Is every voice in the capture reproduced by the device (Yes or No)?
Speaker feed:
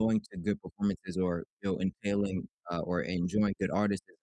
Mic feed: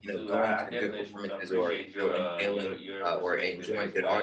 No